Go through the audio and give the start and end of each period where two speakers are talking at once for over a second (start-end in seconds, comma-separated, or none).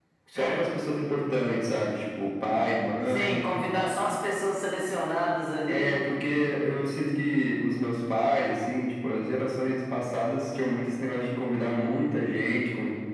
none